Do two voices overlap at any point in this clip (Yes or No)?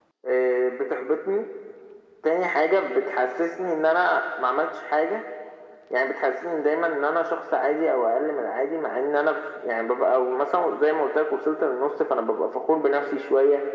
No